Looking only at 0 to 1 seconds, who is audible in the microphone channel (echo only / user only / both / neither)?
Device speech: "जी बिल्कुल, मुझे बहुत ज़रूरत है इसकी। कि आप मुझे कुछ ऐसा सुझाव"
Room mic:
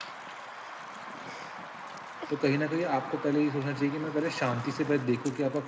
neither